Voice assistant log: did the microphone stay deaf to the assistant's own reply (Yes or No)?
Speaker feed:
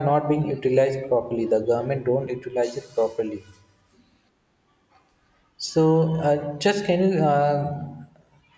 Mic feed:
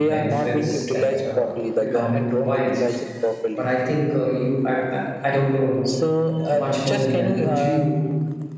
No